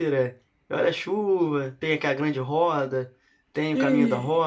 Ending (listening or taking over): taking over